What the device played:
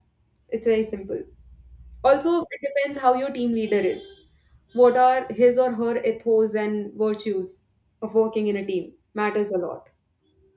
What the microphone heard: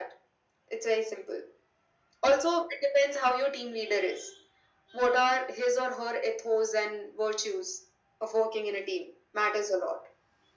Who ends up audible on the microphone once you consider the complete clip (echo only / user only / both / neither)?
echo only